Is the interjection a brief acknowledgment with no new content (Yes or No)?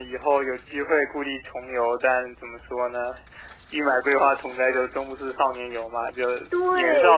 No